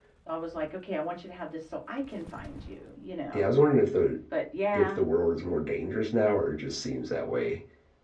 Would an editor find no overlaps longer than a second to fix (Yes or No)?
Yes